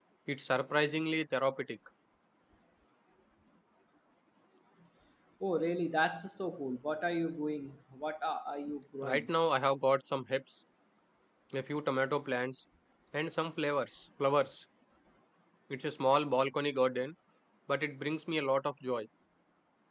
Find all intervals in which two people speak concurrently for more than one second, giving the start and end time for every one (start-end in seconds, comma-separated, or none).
none